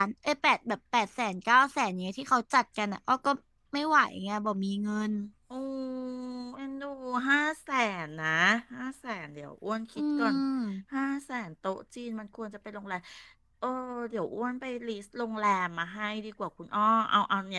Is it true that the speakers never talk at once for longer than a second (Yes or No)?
Yes